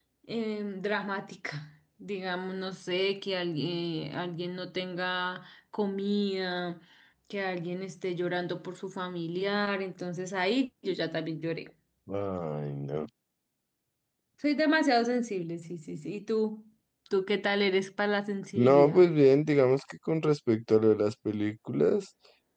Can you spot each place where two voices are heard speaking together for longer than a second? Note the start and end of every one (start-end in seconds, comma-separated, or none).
none